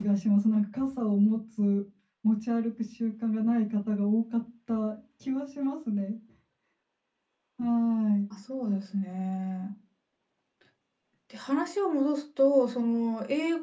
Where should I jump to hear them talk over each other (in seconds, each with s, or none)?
none